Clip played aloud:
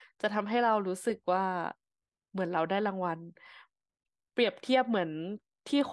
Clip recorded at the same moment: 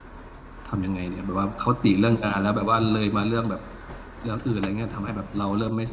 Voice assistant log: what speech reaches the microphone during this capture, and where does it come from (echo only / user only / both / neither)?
user only